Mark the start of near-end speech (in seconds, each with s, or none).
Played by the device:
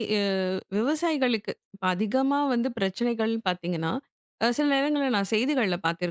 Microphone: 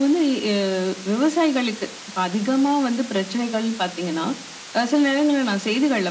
none